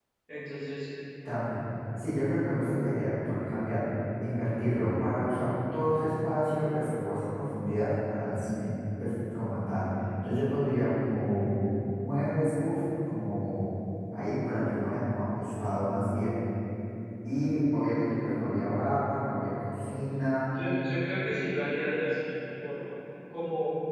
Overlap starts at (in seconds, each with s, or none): none